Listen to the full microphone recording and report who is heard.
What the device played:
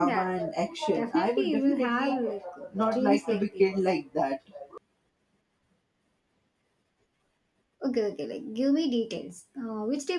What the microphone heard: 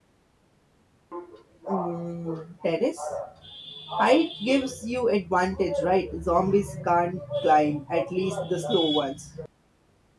user only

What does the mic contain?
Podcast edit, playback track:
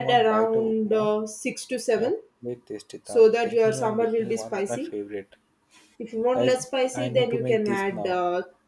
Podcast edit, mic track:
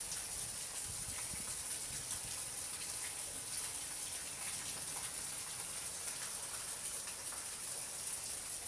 neither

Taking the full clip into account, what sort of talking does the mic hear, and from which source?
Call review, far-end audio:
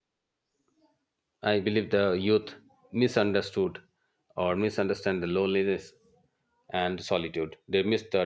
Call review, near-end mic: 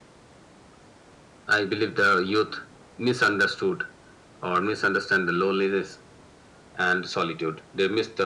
echo only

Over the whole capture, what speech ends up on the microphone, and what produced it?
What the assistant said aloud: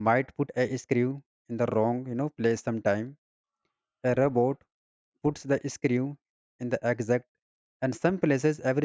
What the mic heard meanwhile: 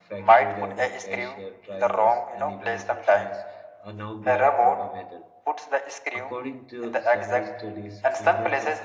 both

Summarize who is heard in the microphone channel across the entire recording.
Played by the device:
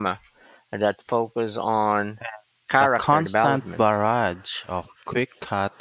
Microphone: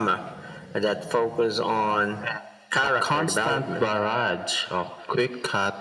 echo only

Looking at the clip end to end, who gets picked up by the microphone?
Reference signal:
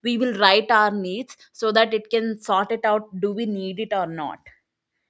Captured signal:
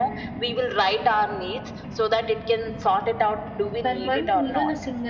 both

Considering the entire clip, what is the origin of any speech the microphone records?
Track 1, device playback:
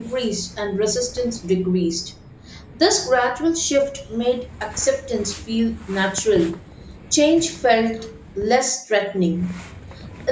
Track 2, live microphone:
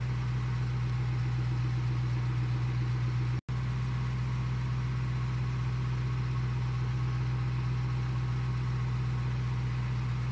neither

